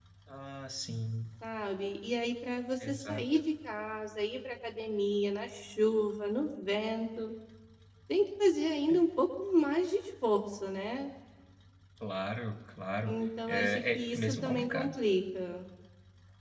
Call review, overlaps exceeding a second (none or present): present